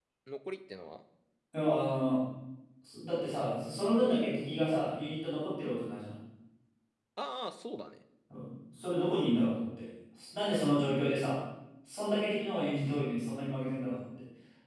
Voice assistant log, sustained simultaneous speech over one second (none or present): none